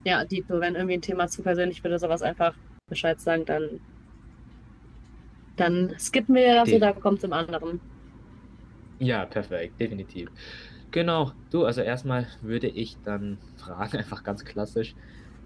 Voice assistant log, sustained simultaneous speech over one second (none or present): none